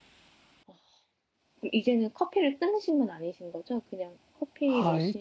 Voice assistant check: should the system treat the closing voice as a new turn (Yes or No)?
Yes